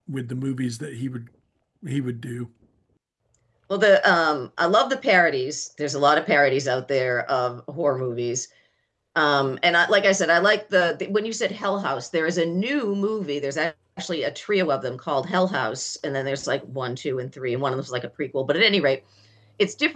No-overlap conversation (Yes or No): Yes